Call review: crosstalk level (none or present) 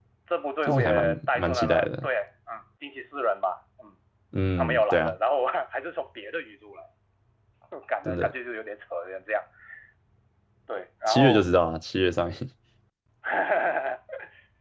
present